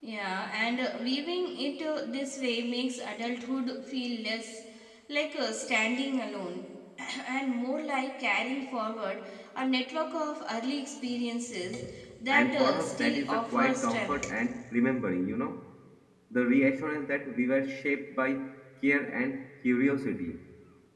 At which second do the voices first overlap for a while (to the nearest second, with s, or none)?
12 s